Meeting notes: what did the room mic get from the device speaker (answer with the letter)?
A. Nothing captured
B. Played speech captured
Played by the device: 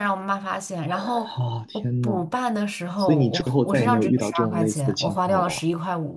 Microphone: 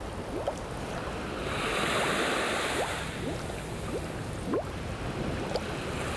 A